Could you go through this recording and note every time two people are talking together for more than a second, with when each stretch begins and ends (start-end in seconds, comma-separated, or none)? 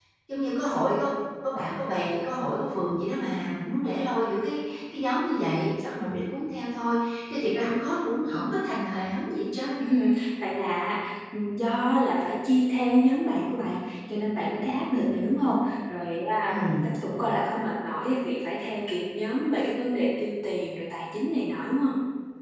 none